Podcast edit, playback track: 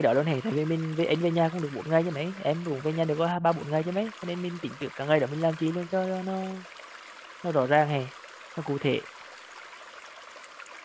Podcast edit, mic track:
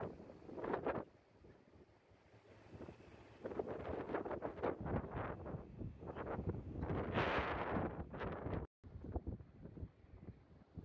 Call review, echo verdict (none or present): none